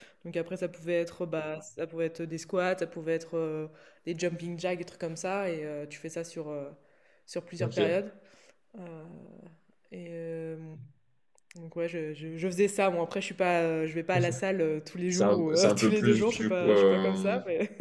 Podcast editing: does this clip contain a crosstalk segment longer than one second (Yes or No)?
Yes